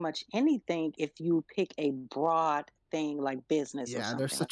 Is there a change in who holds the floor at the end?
Yes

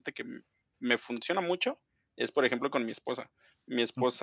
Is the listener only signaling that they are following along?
Yes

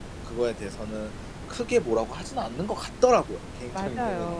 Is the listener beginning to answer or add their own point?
Yes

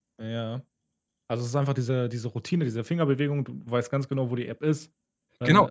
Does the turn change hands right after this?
Yes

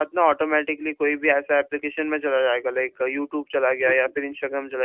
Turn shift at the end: No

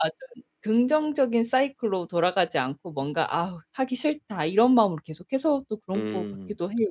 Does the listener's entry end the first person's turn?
Yes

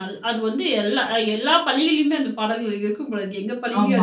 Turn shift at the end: Yes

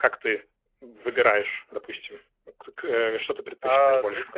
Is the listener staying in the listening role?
No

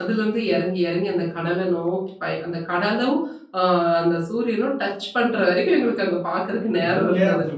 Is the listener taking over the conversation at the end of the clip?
Yes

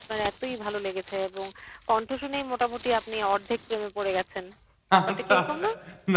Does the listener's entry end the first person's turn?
Yes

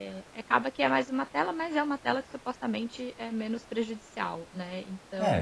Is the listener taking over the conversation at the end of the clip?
Yes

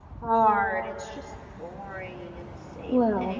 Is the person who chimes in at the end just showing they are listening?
No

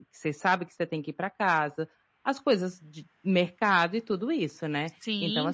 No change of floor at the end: Yes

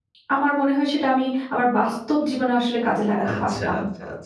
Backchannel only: No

